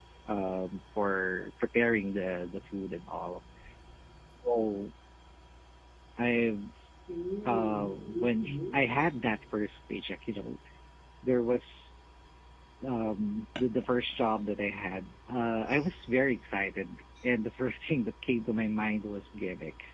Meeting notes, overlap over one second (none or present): present